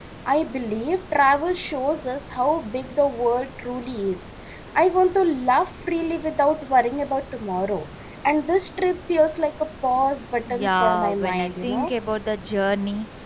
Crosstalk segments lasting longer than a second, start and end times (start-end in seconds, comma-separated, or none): 10.5-11.9